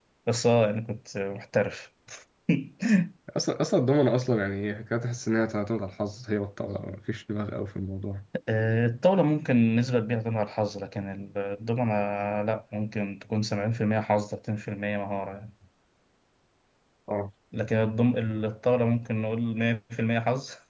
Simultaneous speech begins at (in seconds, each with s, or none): none